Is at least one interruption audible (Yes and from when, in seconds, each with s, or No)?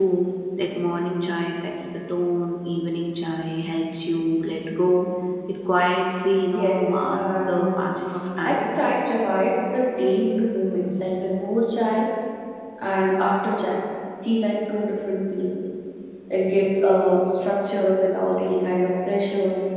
Yes, from 6.5 s